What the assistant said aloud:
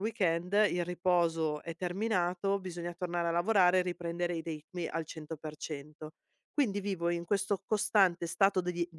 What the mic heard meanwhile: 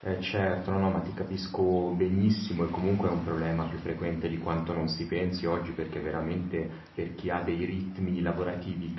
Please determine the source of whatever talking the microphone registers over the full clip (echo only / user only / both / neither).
user only